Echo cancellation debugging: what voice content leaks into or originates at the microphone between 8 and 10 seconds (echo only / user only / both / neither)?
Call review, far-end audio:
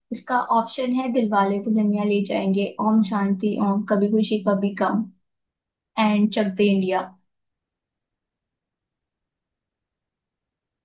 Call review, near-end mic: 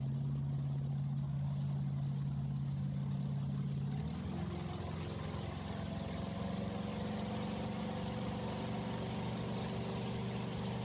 neither